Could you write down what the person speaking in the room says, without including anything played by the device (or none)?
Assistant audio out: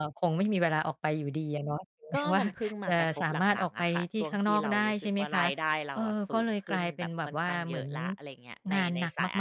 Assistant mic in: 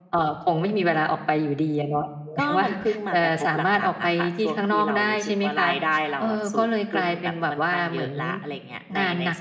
none